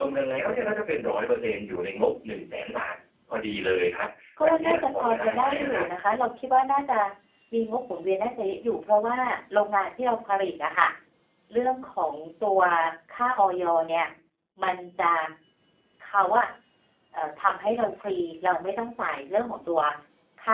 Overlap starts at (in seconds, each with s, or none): 4.4 s